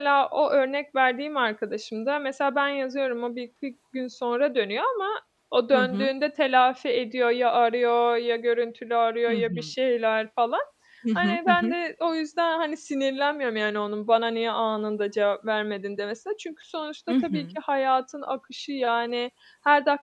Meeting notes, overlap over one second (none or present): none